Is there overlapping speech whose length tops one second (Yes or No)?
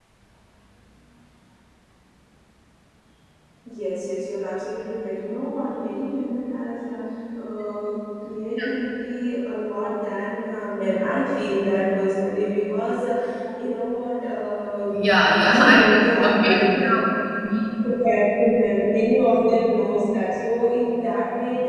Yes